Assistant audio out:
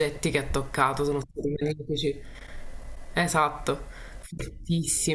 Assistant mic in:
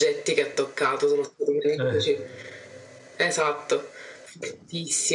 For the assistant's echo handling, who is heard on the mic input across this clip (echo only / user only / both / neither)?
both